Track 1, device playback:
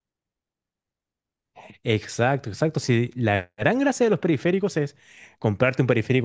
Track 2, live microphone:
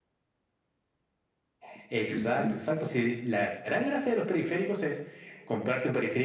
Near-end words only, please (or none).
Ujú.